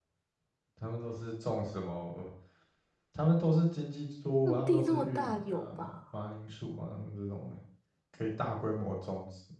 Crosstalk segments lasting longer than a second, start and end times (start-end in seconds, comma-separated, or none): 4.5-6.0